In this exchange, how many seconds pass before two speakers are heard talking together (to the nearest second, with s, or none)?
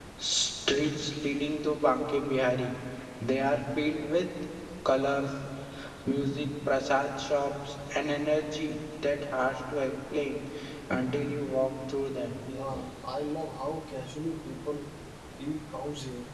none